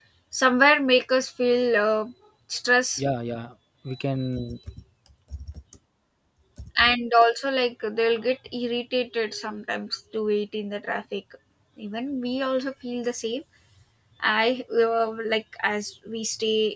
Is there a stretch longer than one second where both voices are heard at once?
No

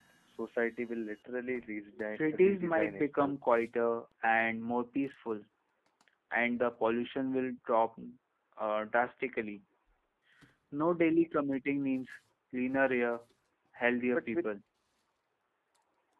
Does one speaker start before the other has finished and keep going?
Yes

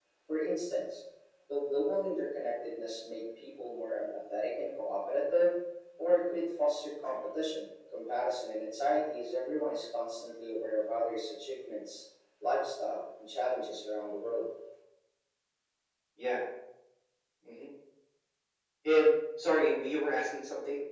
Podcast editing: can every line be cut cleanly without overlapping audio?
Yes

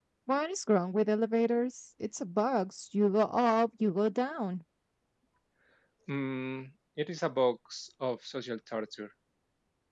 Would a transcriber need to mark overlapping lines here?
No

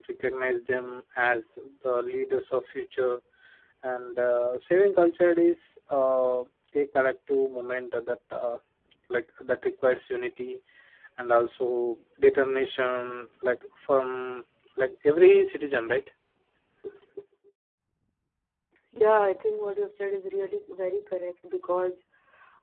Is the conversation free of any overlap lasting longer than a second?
Yes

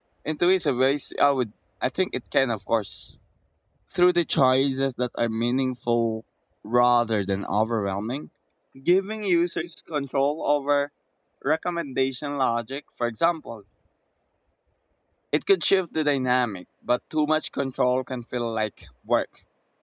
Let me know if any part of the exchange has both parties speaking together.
No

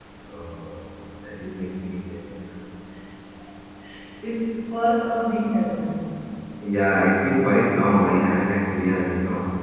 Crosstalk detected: No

